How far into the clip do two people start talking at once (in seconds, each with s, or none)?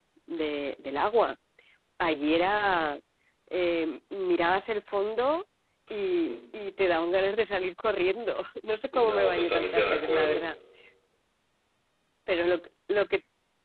8.9 s